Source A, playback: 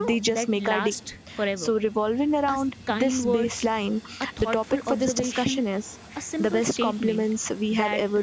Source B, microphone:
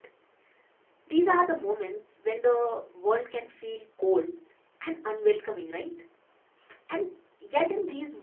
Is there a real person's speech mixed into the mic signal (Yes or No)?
Yes